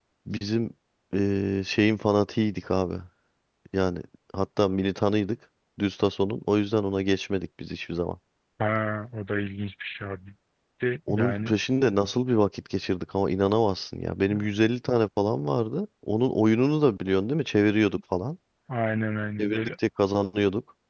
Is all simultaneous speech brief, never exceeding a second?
Yes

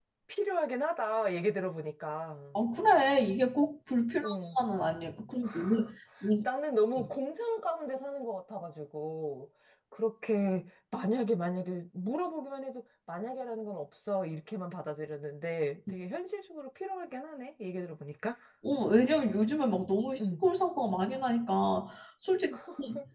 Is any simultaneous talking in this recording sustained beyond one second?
No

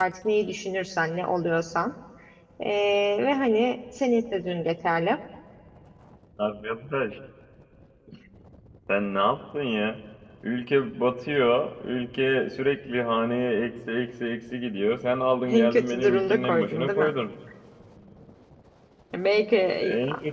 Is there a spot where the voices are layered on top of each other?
Yes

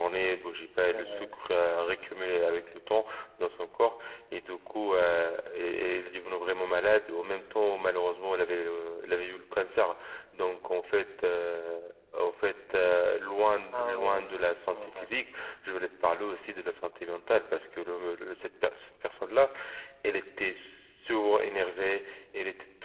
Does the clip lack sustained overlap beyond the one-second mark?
No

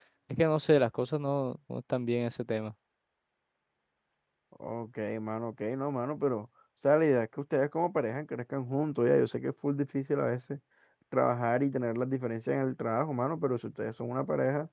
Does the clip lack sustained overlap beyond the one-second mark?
Yes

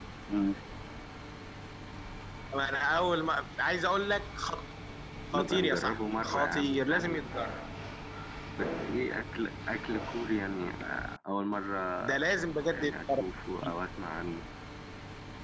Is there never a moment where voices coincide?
No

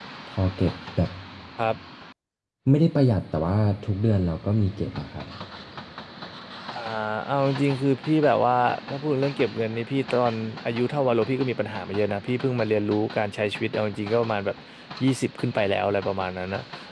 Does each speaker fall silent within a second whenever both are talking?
Yes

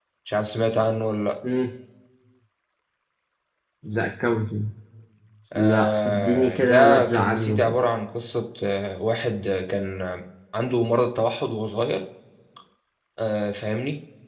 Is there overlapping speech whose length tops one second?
Yes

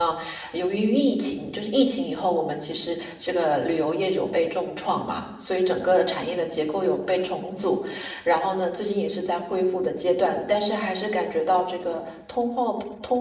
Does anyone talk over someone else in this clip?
No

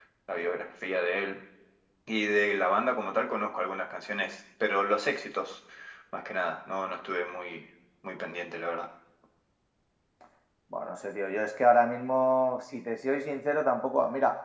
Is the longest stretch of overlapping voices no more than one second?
Yes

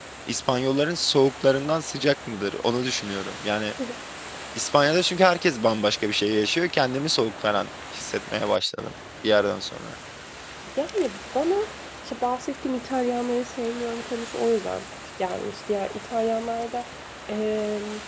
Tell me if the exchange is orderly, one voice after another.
Yes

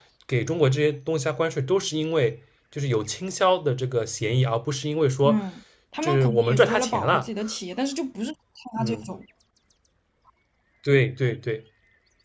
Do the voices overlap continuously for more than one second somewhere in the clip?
Yes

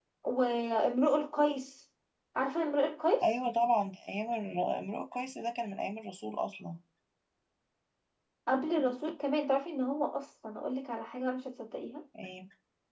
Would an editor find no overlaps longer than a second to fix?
Yes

